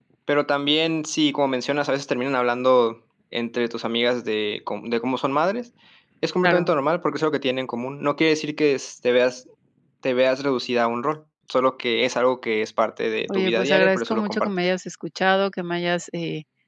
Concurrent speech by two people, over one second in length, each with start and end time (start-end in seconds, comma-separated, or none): 13.3-14.5